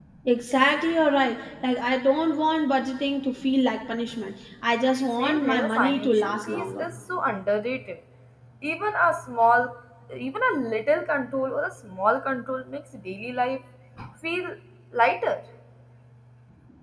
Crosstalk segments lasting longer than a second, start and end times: 5.2-6.8

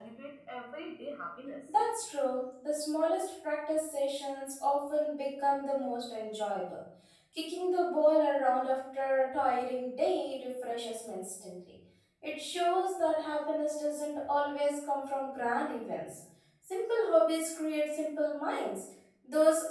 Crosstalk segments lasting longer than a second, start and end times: none

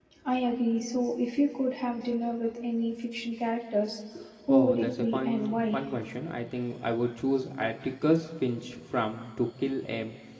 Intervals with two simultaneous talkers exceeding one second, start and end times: 4.5-5.8

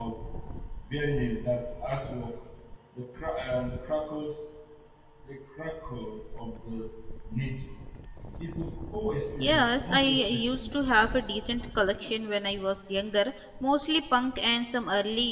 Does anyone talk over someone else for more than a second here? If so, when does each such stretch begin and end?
9.4-10.7

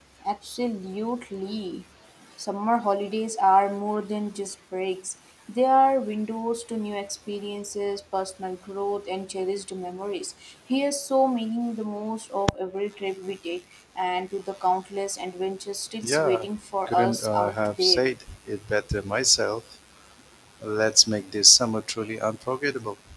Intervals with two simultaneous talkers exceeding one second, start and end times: 16.9-18.1

